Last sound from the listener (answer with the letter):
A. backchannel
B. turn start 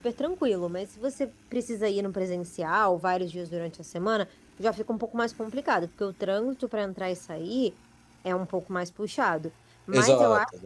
A